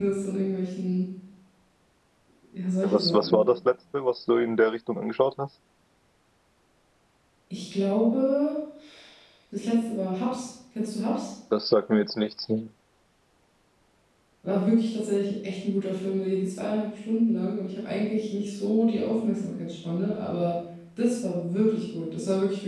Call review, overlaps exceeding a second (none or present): none